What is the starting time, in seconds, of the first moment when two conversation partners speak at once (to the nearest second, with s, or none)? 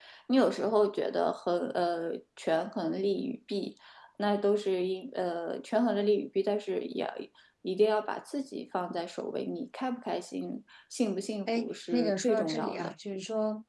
11 s